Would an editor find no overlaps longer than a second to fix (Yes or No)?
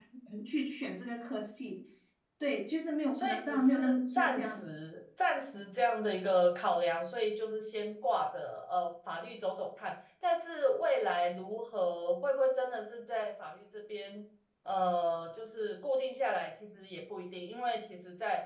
No